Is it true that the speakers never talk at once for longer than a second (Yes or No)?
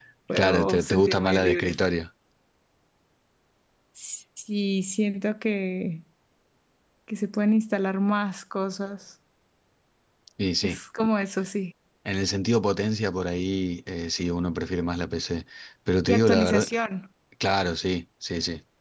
No